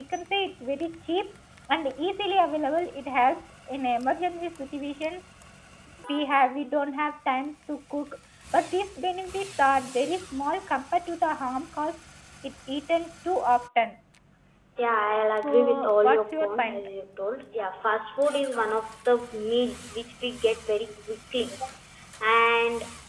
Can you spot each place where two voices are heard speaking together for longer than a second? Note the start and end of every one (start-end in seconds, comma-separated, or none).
15.4-16.9